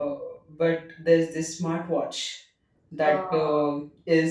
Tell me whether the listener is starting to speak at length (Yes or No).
No